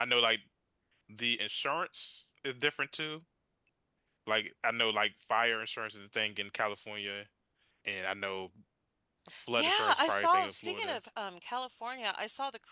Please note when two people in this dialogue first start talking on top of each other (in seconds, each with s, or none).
9.5 s